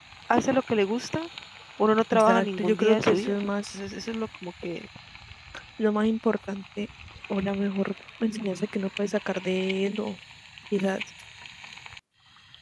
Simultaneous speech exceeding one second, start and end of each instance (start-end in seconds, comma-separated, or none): 2.1-3.4